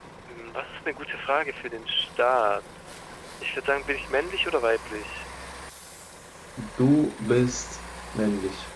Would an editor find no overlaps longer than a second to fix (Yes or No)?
Yes